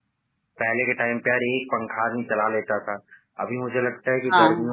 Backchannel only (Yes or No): Yes